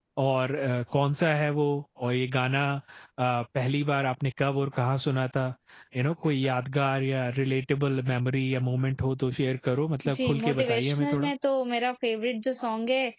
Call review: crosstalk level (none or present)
present